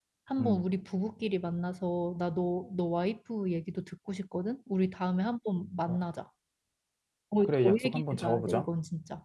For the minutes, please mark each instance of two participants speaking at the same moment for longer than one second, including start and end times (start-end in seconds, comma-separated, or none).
7.4-8.7